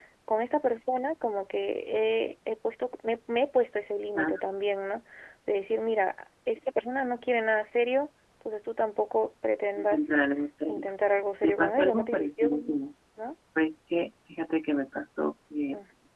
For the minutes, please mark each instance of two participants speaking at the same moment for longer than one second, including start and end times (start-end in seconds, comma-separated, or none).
11.4-12.8